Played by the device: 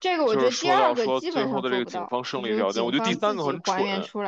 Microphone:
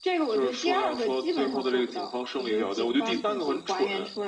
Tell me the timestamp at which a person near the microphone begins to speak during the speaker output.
none

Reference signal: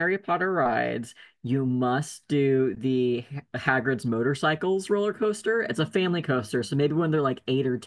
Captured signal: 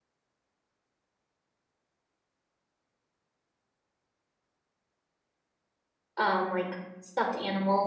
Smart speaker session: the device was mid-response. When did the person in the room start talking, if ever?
6.2 s

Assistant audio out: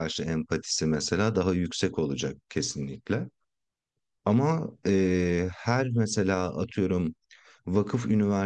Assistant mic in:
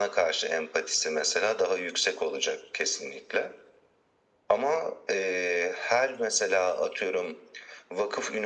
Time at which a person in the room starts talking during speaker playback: none

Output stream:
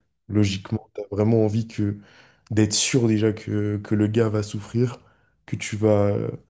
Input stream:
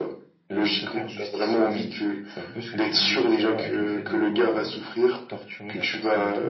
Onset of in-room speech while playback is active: 0.6 s

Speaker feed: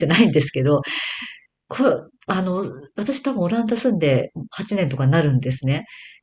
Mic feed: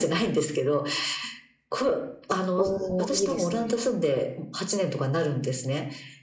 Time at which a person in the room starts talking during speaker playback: 2.5 s

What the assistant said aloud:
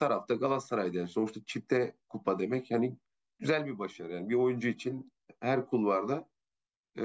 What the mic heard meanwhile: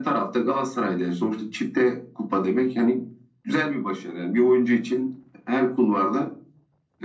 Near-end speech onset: none

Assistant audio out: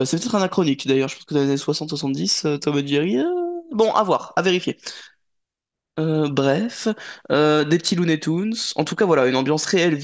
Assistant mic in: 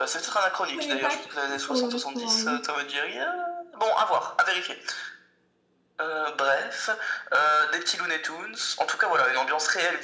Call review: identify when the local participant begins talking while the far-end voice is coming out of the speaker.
0.6 s

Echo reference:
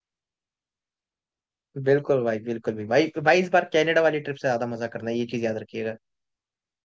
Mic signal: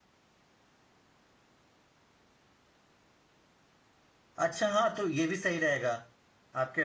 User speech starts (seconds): 4.4 s

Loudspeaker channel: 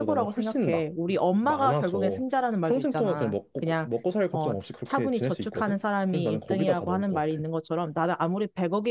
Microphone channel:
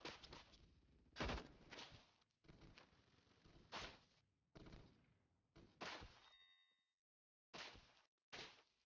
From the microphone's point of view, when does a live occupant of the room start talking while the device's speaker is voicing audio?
none

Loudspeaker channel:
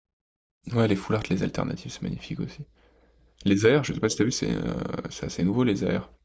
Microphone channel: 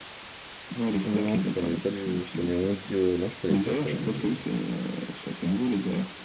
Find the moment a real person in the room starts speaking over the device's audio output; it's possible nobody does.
1.1 s

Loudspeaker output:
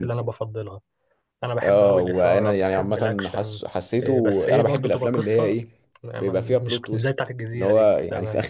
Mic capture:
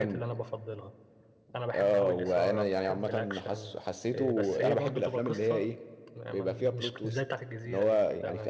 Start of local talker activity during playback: none

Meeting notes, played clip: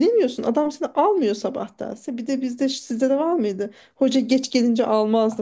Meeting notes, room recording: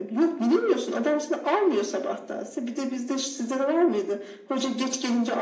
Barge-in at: none

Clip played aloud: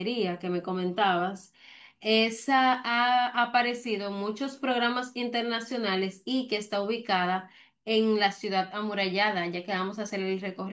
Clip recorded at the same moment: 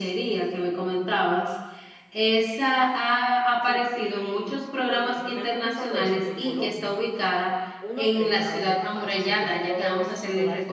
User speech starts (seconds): 3.6 s

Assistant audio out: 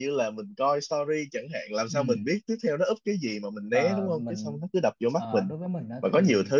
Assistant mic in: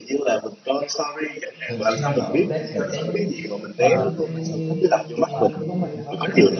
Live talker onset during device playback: 1.7 s

